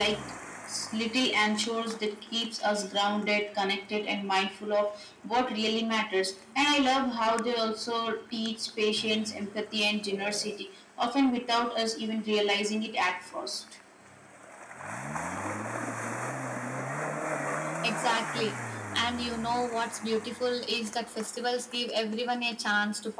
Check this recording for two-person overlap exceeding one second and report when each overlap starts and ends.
none

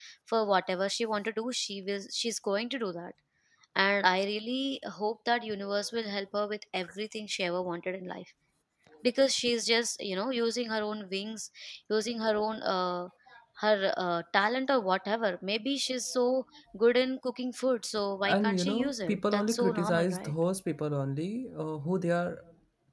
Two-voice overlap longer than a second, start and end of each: 18.3-20.3

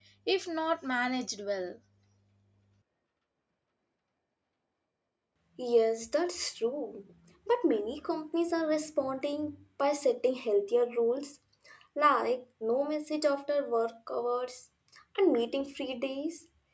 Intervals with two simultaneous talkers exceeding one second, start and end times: none

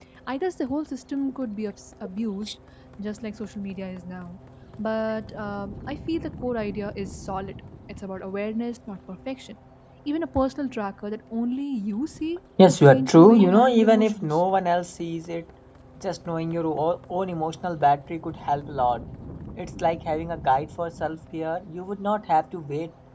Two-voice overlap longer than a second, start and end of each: 12.7-14.3

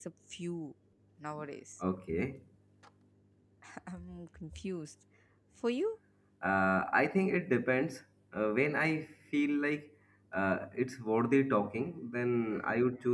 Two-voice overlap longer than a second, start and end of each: none

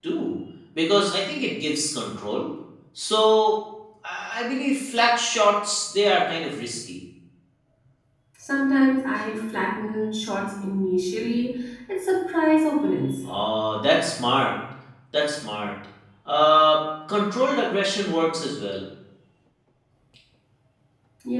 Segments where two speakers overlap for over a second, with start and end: none

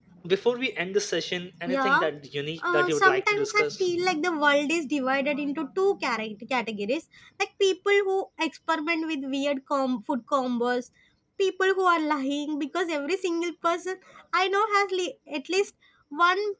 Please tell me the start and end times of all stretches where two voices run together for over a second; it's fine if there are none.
2.6-3.9

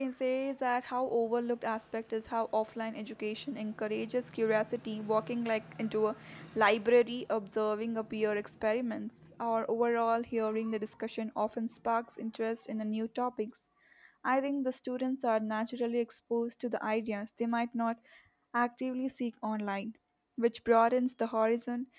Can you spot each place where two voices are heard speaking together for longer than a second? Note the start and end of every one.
none

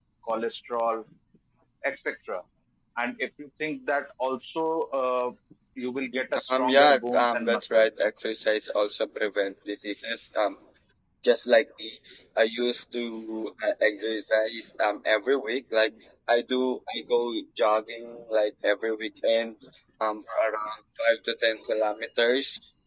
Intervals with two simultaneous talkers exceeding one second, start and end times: 6.5-7.9

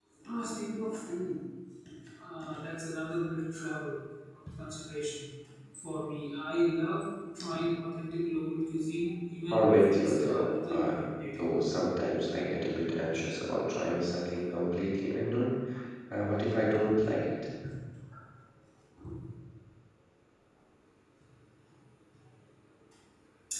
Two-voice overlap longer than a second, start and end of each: 9.5-11.0

